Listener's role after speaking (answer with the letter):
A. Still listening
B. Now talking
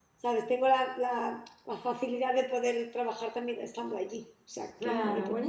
B